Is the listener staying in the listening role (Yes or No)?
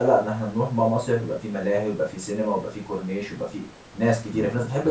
No